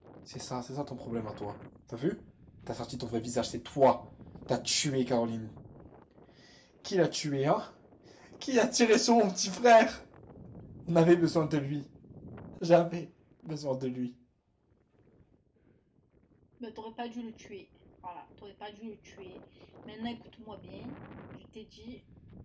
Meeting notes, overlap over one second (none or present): none